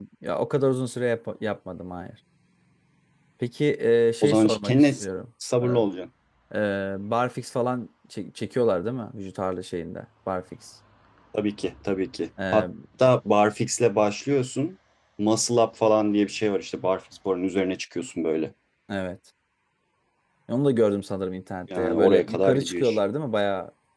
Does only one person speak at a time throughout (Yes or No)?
No